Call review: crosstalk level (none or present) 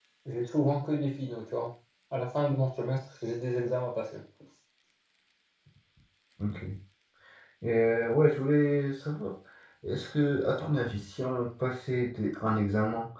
none